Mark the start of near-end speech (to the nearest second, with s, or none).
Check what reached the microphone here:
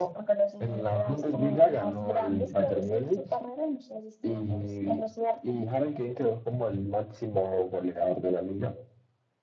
none